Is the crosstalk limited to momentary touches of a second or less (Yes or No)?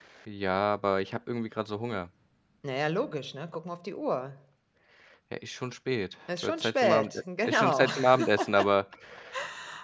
No